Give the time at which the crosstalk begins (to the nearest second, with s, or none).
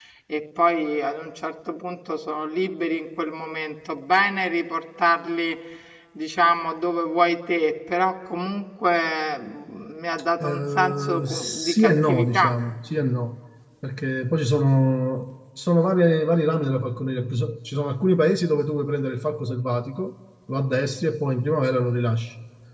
10 s